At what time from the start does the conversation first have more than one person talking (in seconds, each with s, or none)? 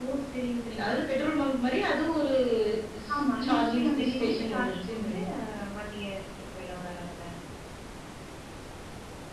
3.1 s